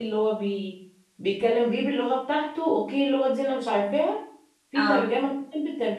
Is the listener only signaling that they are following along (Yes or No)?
Yes